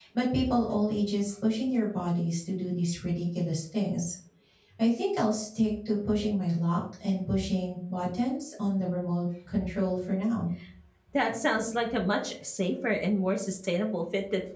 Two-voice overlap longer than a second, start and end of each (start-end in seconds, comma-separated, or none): none